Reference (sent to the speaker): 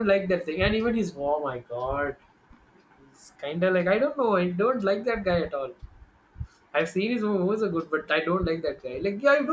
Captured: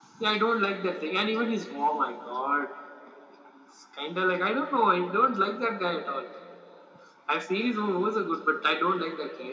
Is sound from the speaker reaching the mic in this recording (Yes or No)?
Yes